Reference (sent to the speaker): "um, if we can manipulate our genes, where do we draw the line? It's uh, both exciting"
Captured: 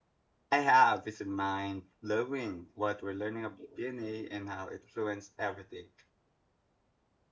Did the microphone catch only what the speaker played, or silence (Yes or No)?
No